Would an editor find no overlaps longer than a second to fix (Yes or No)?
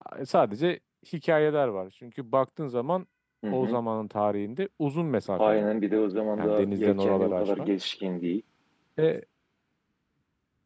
No